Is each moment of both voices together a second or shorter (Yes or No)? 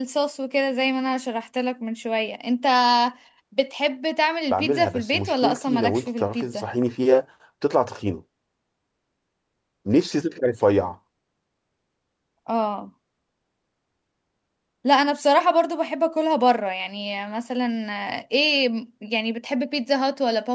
No